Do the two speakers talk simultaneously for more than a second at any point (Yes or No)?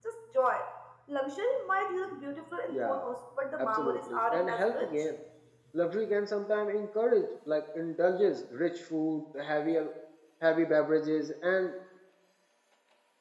Yes